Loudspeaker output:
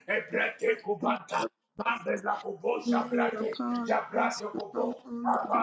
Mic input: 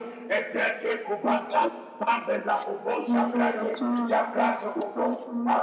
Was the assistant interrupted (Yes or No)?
No